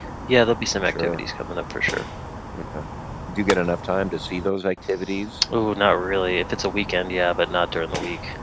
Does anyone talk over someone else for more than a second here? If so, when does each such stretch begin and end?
none

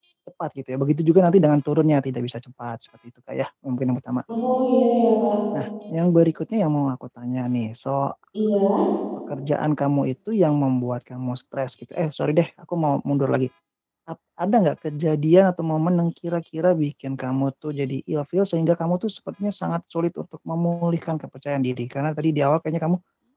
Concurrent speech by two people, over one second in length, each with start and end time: none

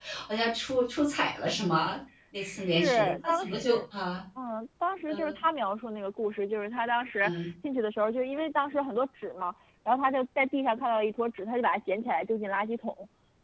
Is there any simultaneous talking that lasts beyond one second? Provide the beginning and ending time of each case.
2.4-3.8

